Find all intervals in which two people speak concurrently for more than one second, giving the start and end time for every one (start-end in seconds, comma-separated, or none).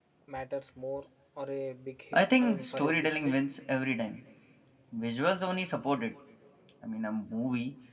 2.1-3.3